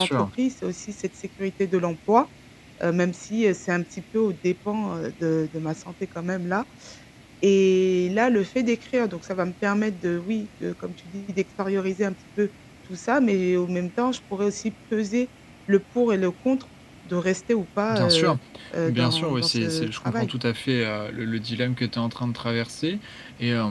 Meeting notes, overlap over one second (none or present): present